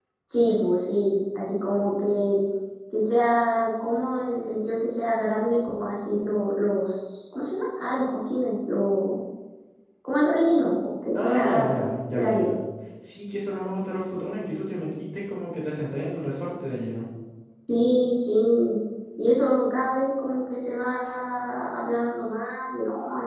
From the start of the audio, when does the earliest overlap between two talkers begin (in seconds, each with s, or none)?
11.1 s